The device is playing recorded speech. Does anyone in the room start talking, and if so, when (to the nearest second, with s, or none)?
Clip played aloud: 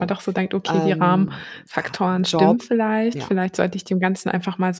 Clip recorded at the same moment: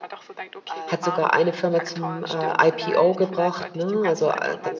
1 s